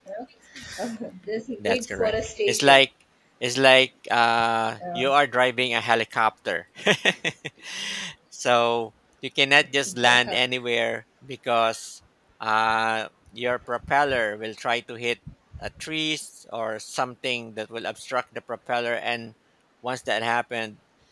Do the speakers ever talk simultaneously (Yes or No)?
Yes